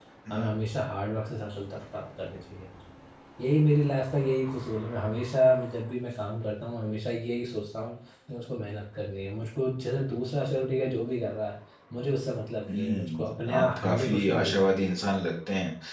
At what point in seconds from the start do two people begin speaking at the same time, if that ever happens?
13 s

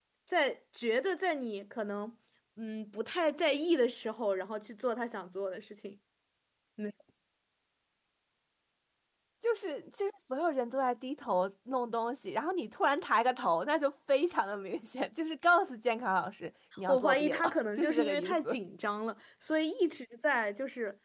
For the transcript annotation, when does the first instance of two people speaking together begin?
17 s

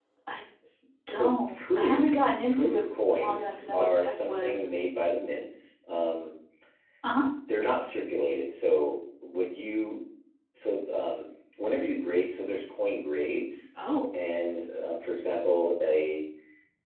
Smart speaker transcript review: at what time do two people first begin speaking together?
1 s

